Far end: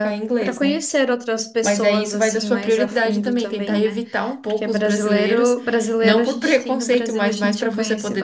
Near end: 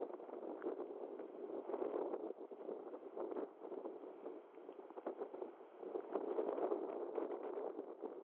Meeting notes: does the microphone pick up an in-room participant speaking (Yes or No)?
No